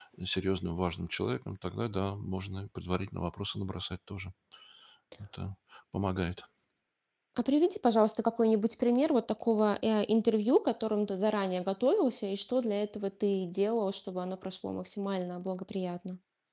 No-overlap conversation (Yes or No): Yes